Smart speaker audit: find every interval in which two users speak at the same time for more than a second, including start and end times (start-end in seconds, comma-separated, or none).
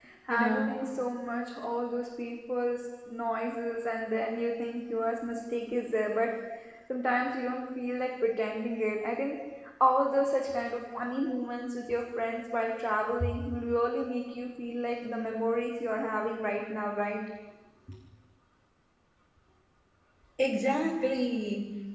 none